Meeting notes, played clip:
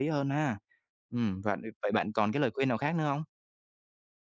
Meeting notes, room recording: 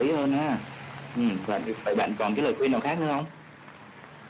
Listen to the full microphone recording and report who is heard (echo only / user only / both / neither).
echo only